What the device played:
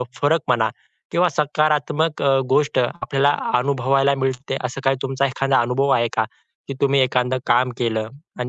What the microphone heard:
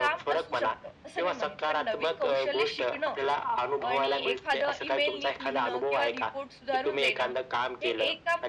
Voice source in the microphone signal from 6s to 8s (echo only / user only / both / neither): both